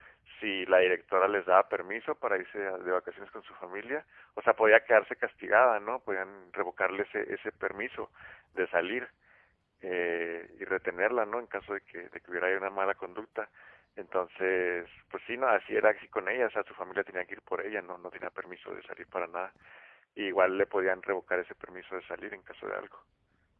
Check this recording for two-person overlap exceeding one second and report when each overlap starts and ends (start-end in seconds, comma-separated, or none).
none